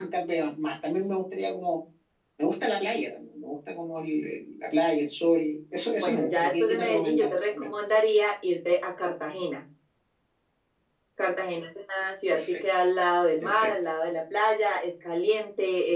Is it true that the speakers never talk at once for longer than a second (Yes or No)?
No